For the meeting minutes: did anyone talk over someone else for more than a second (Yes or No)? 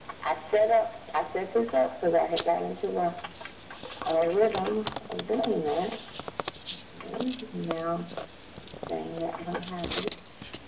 No